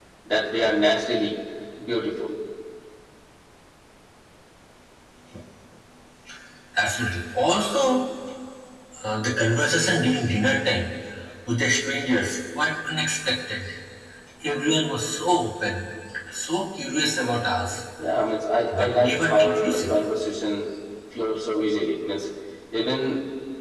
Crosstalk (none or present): present